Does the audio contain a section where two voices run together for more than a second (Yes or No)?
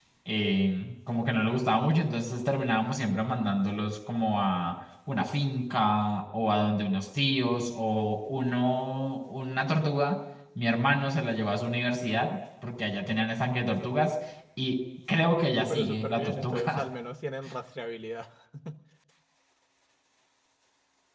Yes